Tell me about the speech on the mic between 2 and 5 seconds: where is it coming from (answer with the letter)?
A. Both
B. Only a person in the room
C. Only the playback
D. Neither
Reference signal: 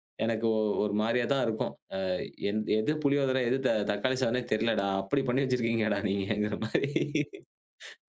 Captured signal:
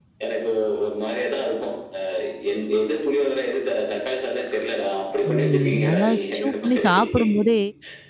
C